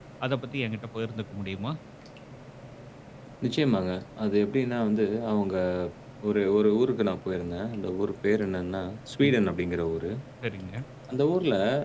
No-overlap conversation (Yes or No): Yes